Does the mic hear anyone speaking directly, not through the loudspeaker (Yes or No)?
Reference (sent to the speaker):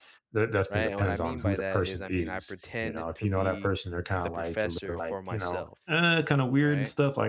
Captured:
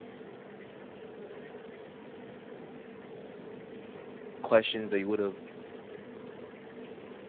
Yes